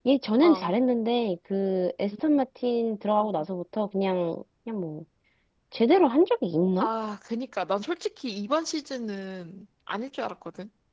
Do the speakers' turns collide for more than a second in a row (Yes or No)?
No